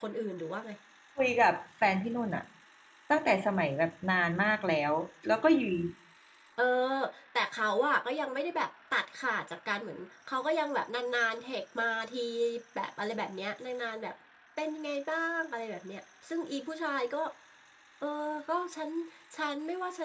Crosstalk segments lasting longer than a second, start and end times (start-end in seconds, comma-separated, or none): none